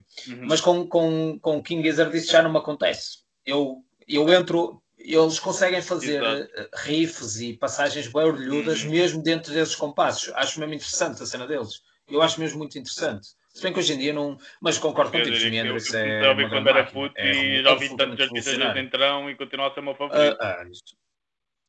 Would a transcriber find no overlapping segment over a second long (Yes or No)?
No